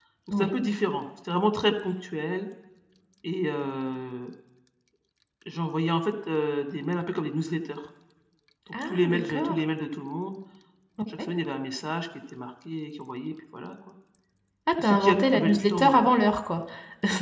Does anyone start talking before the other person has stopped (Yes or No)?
Yes